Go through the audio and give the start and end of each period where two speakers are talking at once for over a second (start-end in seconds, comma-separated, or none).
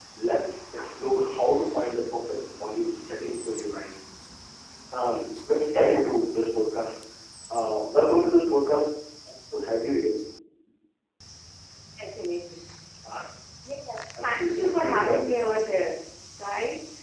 14.2-15.5